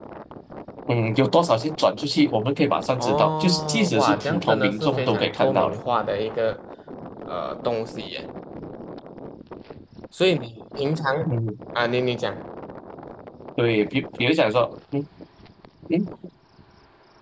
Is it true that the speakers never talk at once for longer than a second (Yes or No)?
No